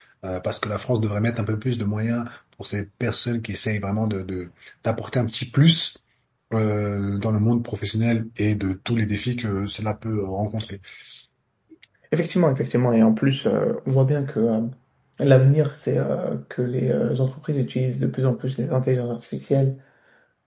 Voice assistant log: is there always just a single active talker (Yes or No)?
Yes